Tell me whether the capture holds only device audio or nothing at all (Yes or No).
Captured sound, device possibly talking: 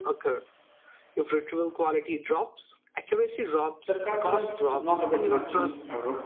No